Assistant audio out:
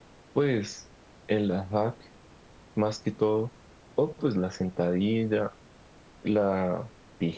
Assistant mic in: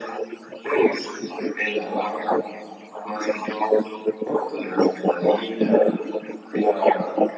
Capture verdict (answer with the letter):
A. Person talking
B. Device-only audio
B